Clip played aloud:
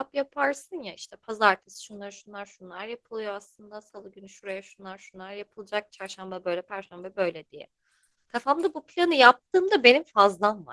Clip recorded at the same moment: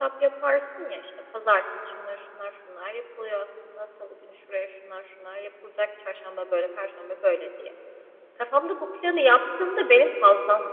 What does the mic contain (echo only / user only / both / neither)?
echo only